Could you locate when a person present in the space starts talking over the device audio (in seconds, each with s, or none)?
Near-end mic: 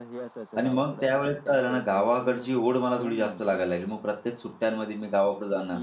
0.6 s